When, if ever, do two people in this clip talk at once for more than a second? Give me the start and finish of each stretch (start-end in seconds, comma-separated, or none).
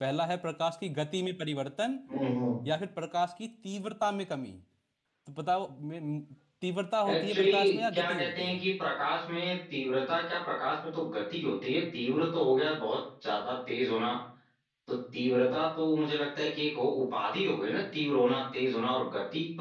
7.1-8.6